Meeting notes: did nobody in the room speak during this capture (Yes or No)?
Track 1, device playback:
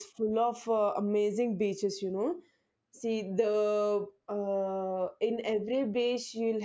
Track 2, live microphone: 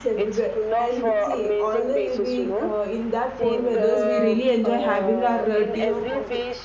No